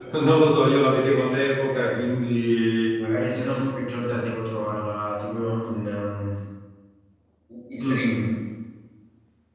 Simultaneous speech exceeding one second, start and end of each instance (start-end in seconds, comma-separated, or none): none